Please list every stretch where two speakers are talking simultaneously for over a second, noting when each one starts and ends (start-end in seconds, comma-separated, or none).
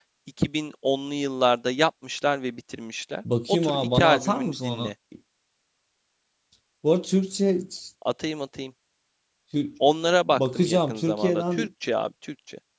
3.5-4.9, 10.3-11.6